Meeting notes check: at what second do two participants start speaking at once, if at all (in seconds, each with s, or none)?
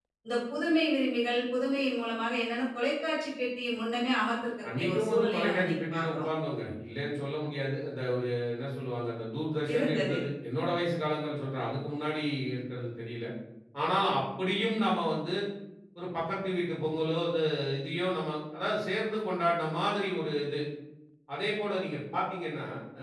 4.7 s